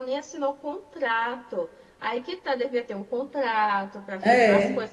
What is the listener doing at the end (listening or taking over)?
listening